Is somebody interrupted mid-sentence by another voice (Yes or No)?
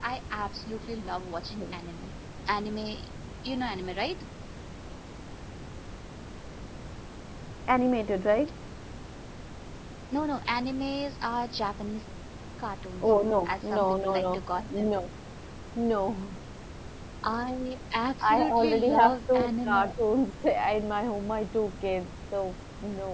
Yes